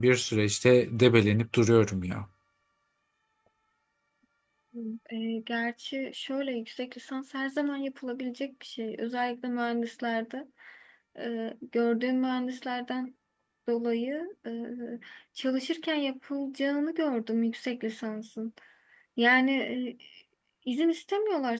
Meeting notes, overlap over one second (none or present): none